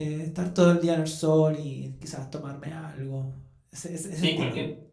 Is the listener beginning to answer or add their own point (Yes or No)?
Yes